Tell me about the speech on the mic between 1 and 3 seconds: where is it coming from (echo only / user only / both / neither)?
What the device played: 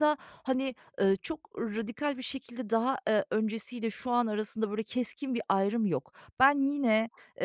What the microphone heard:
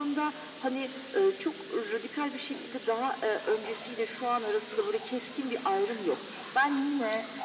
echo only